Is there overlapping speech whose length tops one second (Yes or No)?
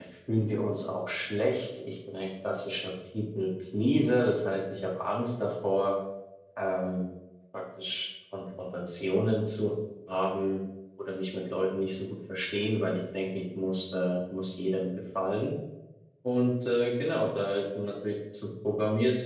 No